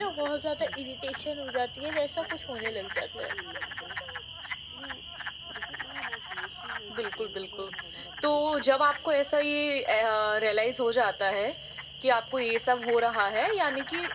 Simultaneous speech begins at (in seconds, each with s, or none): none